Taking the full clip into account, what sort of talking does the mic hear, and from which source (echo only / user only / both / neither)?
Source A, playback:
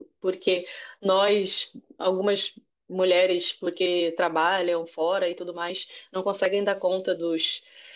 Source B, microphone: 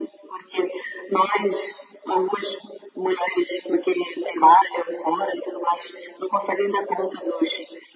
echo only